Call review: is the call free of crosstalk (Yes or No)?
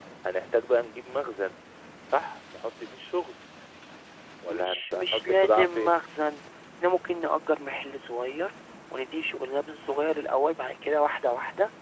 No